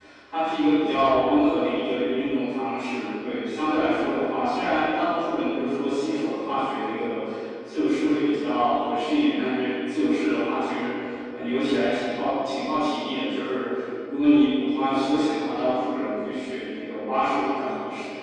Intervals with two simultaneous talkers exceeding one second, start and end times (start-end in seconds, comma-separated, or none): none